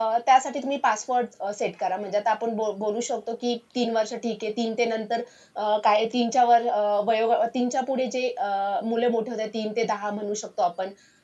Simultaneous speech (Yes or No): No